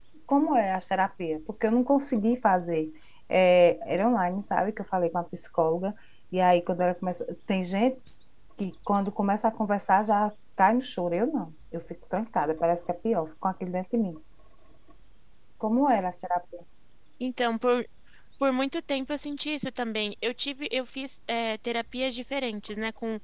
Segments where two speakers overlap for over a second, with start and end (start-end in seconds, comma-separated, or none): none